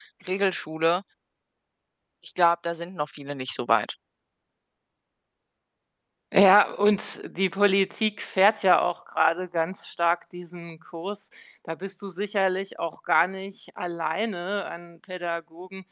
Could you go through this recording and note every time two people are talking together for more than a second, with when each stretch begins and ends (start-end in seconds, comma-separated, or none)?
none